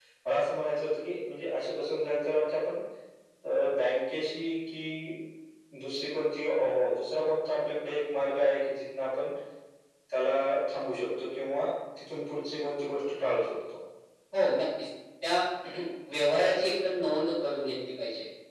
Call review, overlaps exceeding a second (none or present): none